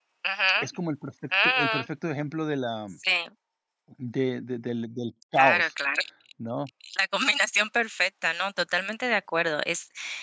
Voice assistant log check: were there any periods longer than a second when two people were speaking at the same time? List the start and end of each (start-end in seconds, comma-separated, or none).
none